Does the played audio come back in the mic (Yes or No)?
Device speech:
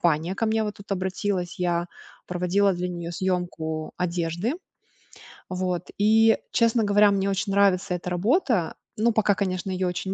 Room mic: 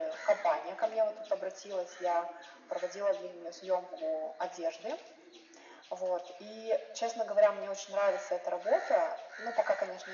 Yes